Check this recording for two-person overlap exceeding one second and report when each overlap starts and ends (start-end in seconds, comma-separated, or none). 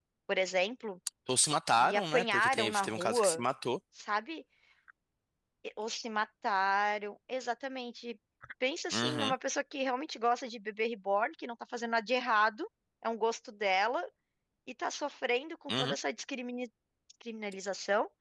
1.8-3.4